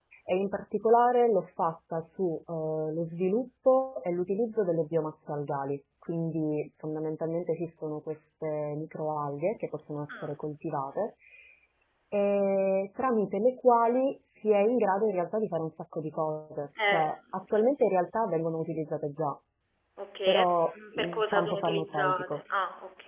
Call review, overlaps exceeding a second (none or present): present